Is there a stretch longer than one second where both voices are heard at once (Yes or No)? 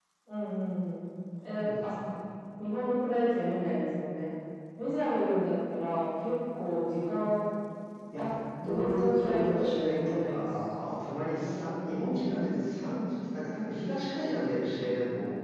Yes